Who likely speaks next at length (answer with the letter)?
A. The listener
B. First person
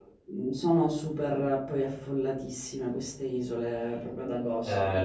A